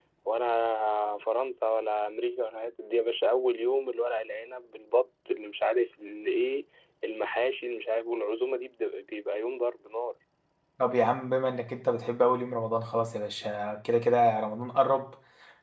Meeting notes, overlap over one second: none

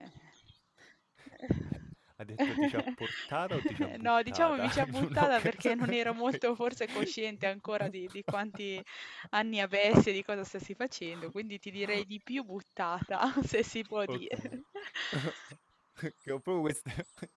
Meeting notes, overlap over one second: present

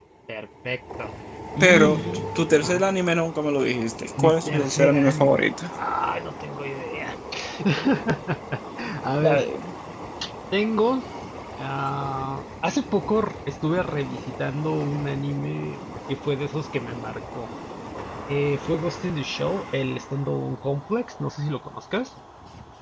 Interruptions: present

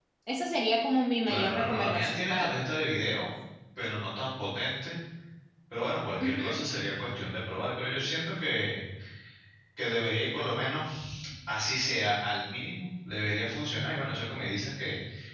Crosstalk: present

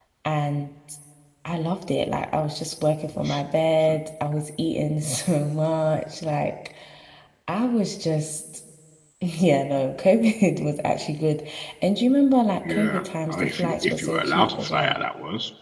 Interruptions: present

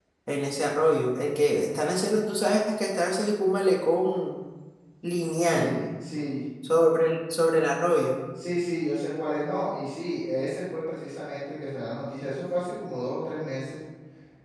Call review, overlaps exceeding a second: none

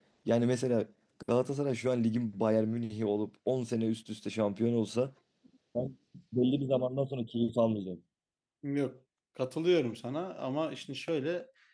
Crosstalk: none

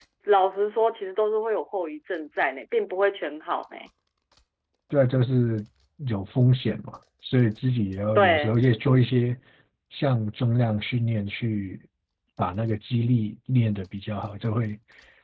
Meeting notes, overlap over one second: none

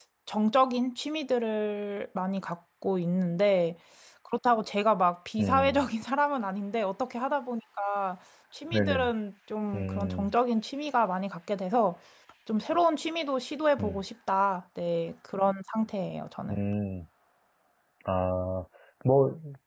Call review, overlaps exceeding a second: none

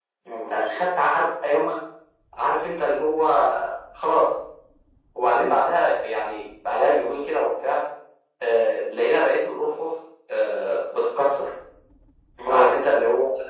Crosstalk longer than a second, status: none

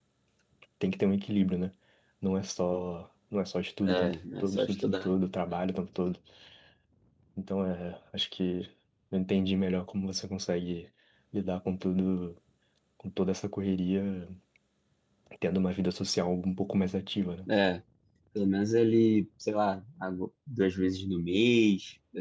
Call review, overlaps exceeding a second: present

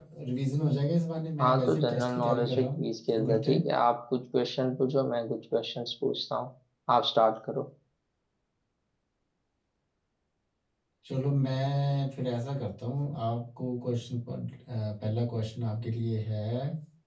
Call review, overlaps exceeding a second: present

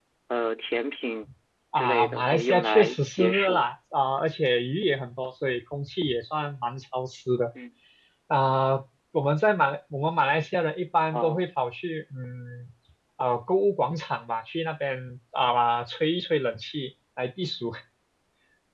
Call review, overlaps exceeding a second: present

